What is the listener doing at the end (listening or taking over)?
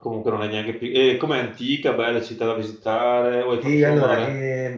taking over